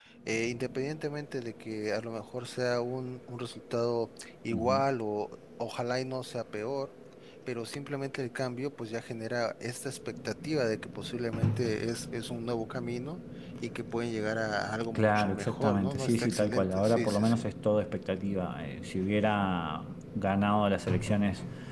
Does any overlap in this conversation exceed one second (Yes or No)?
Yes